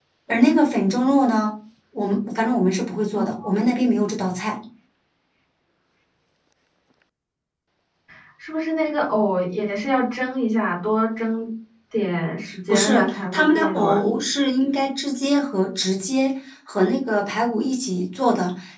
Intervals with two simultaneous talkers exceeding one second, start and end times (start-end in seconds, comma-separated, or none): 12.7-14.0